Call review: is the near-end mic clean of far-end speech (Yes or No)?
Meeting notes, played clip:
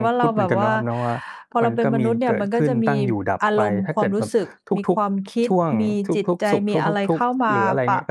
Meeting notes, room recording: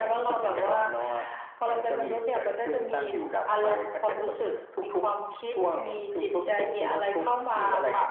No